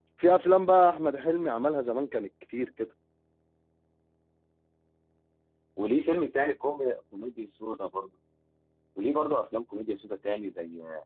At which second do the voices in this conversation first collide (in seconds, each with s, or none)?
none